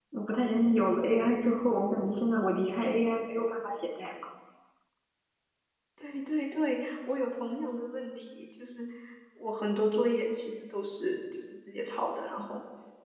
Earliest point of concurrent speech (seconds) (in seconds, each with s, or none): none